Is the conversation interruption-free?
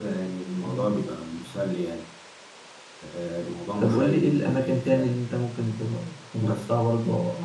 No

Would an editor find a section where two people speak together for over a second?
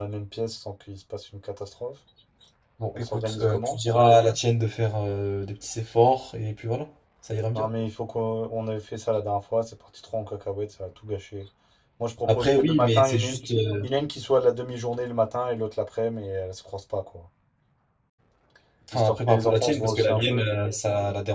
Yes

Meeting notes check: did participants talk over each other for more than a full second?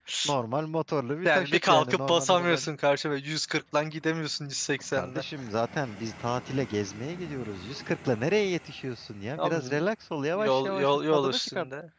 Yes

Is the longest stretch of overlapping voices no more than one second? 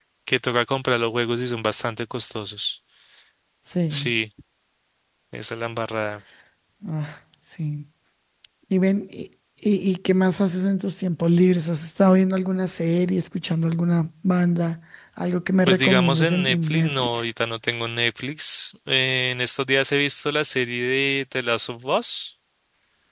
No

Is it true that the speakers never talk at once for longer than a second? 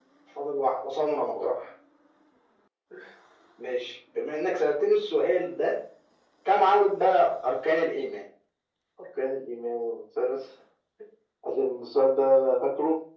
Yes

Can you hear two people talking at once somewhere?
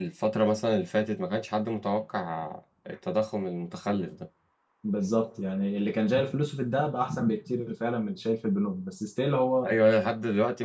No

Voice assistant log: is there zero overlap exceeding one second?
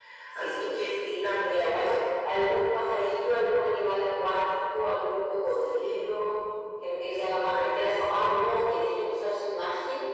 No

